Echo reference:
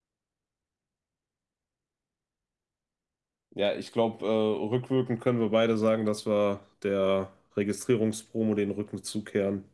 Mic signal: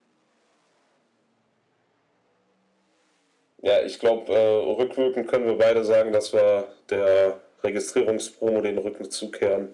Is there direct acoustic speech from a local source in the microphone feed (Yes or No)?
No